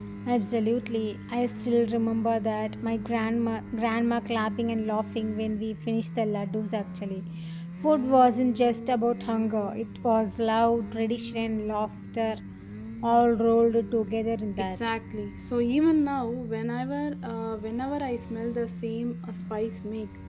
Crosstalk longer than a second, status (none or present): none